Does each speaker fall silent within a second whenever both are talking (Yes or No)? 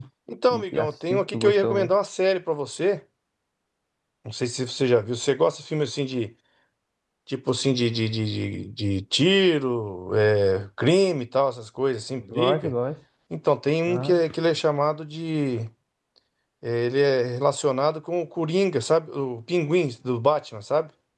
No